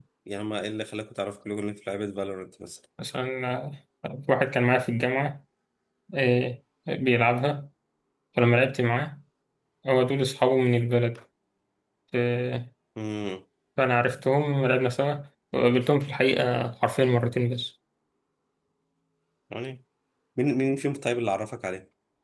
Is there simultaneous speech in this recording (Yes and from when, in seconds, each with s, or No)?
No